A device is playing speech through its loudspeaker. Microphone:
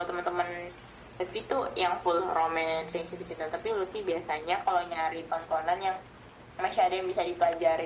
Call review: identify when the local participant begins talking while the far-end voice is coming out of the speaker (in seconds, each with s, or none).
none